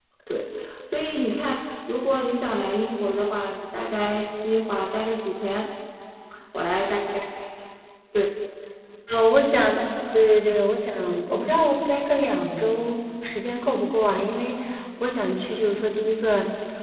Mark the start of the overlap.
none

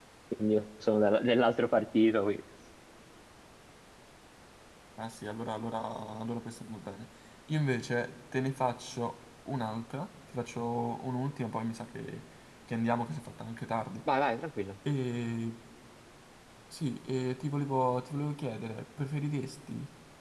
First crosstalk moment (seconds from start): none

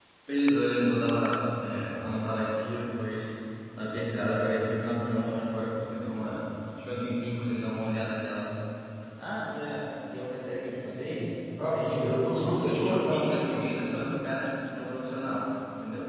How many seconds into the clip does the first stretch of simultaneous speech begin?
11.7 s

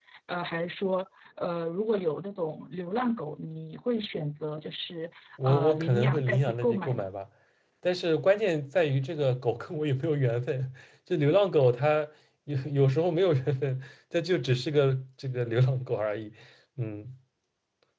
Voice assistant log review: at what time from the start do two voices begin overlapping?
5.4 s

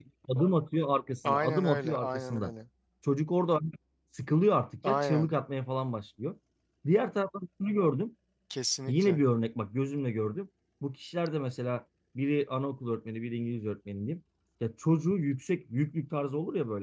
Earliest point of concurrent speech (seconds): 1.2 s

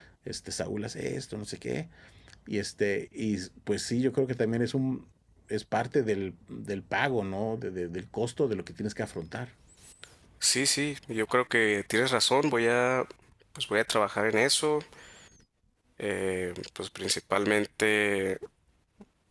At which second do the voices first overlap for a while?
none

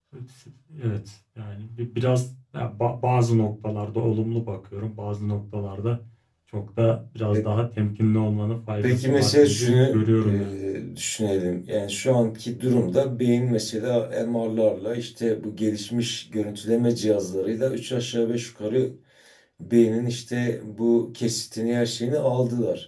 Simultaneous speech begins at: 8.8 s

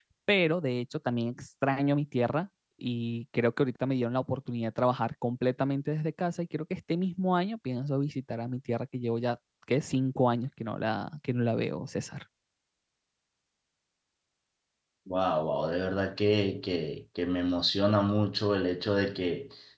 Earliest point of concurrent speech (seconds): none

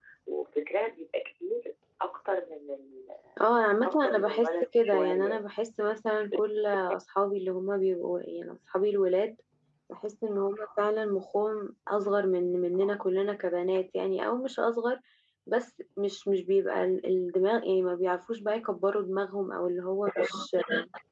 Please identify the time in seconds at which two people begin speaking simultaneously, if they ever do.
3.8 s

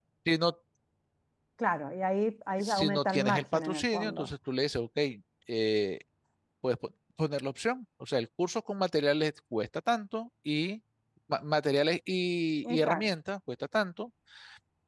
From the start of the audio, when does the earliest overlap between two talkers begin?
2.6 s

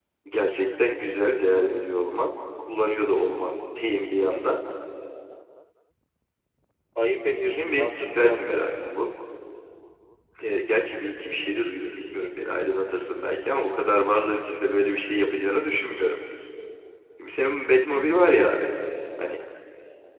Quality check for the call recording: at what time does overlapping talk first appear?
7.4 s

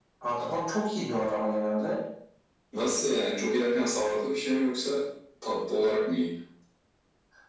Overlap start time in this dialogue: none

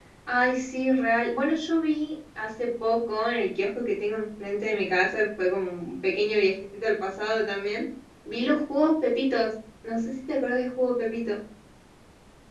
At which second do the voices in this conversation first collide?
none

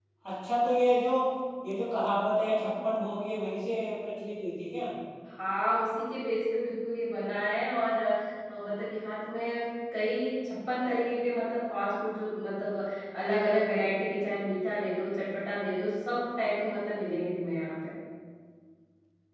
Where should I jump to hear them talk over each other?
none

